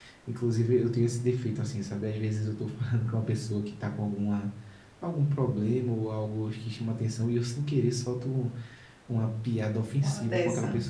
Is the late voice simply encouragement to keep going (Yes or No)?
Yes